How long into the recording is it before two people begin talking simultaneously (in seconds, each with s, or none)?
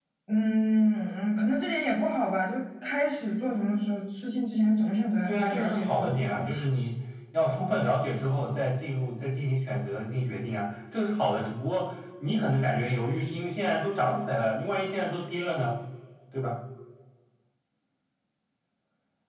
5.2 s